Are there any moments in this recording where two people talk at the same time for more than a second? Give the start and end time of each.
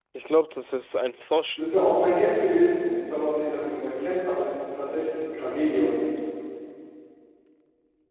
none

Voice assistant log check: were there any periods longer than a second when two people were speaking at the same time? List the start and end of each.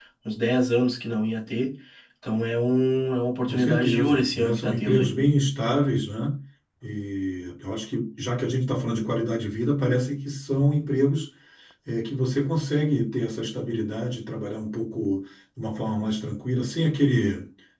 3.4-5.1

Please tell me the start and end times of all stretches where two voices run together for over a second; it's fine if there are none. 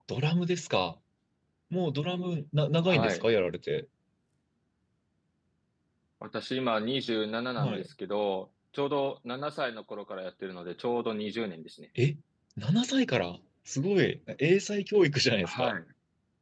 none

